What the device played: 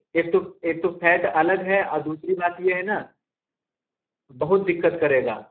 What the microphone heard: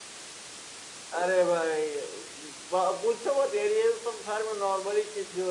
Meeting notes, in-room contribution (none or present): present